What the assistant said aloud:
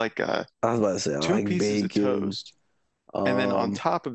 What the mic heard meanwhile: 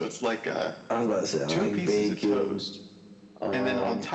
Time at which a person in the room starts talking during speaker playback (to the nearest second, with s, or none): none